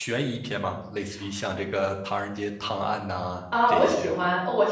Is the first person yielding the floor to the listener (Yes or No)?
Yes